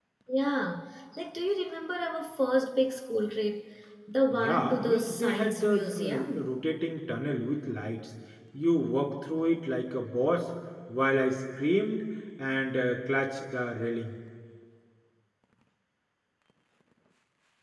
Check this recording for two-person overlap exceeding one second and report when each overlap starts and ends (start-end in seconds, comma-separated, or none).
4.3-6.5